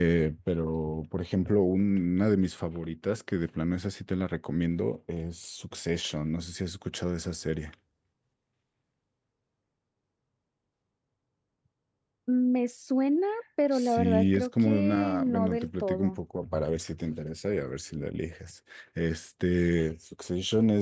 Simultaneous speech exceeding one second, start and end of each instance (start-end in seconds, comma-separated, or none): 13.7-16.2